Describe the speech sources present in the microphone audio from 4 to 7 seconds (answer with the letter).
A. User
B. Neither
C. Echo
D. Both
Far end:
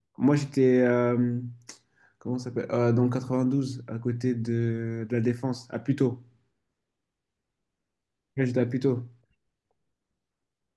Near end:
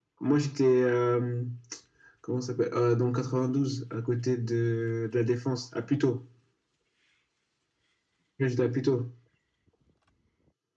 C